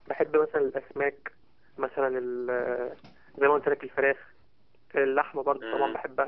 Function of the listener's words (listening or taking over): listening